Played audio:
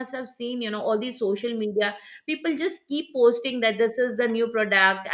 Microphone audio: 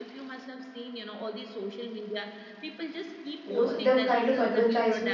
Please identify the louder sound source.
user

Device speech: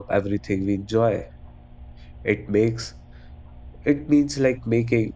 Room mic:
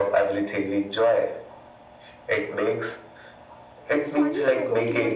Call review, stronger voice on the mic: echo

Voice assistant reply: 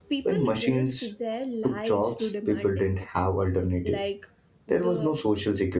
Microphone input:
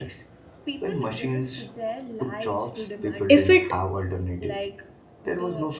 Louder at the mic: user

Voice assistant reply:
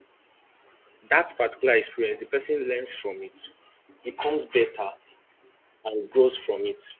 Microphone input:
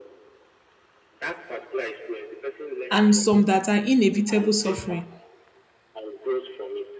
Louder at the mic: user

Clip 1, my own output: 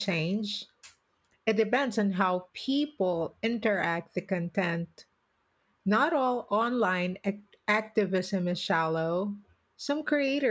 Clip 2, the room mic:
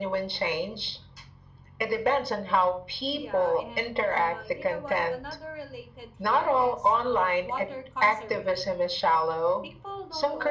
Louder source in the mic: echo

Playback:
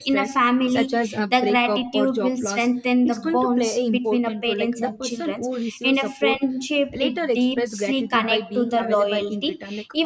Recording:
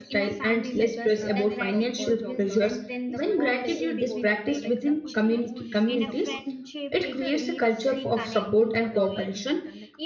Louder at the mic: user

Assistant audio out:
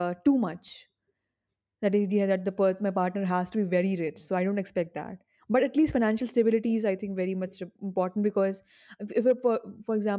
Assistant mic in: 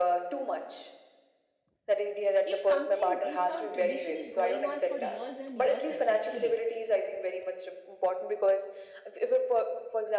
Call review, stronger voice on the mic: echo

